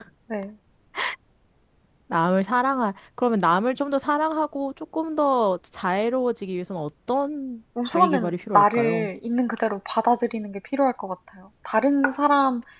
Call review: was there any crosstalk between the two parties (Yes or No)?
Yes